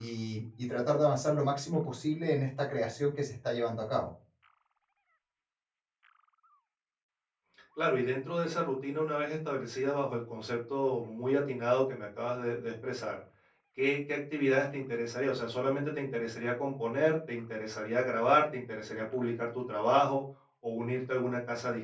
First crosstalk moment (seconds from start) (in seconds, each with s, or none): none